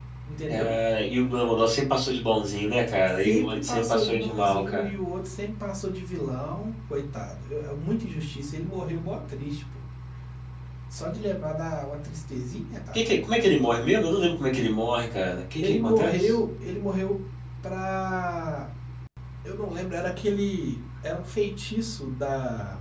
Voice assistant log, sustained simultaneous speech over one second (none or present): present